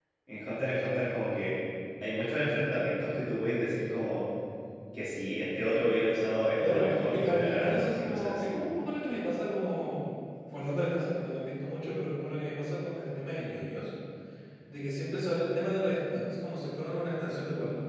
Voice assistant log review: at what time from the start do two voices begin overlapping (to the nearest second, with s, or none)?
7 s